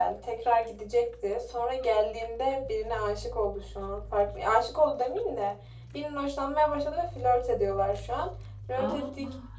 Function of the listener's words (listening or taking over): listening